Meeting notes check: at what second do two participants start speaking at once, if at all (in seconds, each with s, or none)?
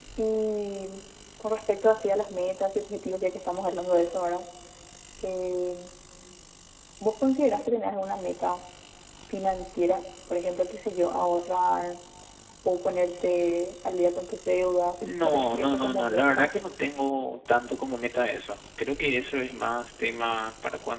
15.2 s